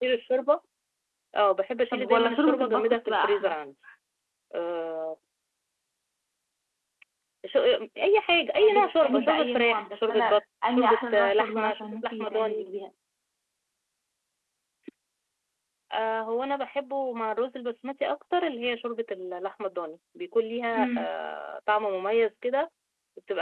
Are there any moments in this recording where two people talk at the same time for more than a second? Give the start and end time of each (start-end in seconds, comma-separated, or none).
1.9-3.5, 8.6-10.2, 10.7-12.6